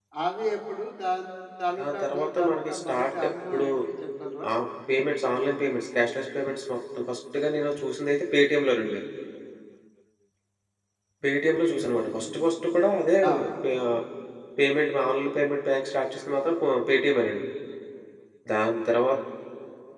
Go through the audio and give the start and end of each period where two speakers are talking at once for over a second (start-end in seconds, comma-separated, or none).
1.8-3.7